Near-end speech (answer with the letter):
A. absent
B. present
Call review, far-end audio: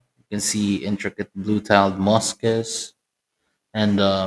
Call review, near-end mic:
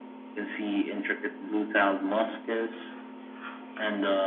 A